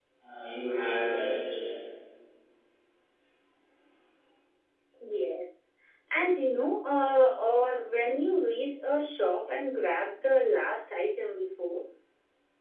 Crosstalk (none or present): none